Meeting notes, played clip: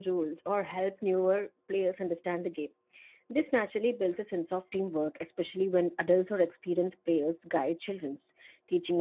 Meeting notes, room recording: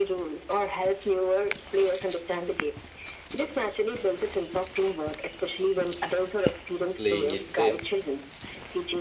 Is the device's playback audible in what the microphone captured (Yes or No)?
Yes